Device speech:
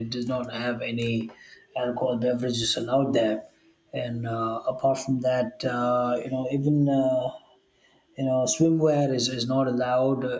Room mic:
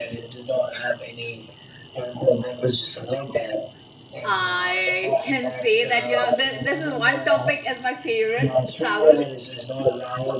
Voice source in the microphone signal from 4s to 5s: both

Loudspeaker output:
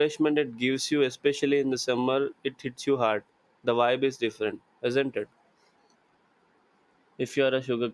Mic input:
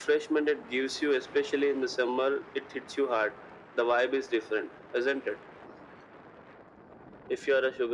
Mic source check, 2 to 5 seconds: echo only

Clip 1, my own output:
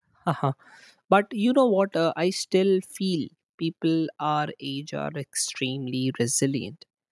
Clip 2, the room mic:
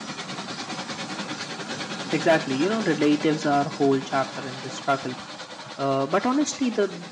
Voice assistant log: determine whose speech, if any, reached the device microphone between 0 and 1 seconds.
neither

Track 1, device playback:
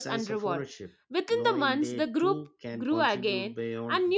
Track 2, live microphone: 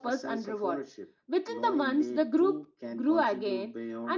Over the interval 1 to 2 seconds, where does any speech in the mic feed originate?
echo only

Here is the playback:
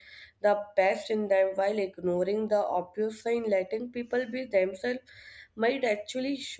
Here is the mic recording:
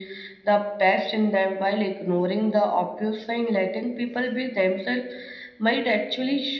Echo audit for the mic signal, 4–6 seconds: echo only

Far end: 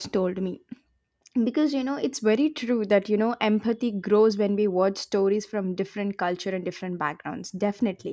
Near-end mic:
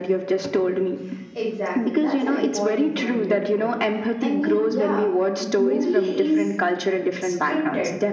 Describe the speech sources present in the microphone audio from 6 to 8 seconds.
both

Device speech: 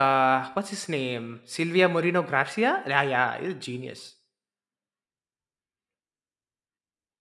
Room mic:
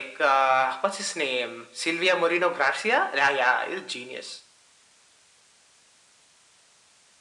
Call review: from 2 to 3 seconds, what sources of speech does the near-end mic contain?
echo only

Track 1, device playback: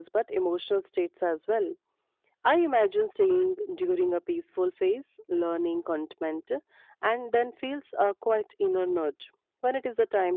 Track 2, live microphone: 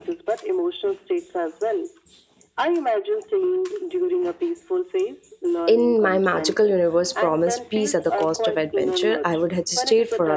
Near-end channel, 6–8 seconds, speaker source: both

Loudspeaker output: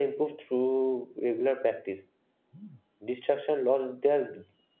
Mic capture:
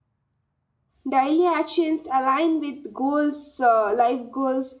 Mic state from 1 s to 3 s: user only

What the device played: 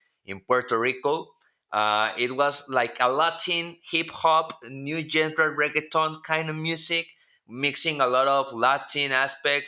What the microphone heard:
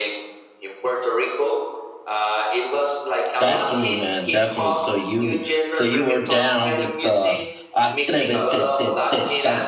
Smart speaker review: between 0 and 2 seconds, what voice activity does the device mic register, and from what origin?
echo only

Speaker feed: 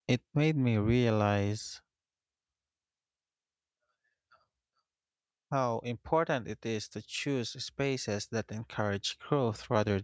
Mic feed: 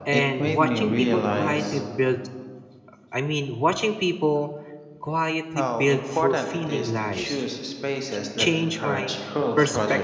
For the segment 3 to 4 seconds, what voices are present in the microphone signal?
user only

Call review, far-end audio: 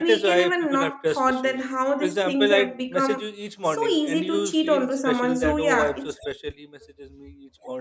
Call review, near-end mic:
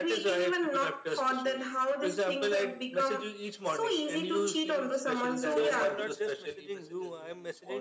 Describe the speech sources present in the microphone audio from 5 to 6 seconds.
both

